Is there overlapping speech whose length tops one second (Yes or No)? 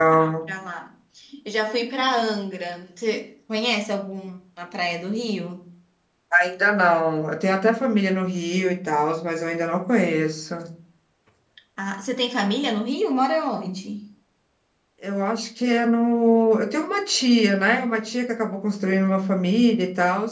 No